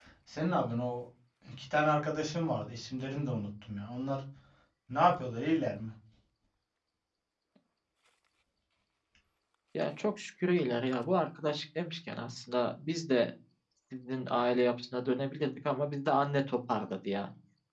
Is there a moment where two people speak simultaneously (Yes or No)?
No